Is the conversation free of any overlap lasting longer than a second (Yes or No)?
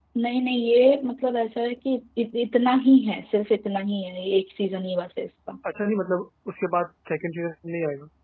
Yes